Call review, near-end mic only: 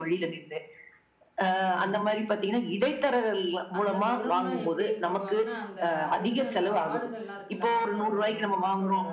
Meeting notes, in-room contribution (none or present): present